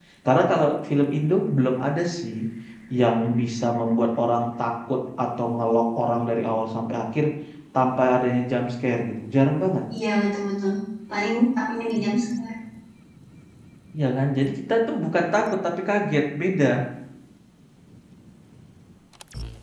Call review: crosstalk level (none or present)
none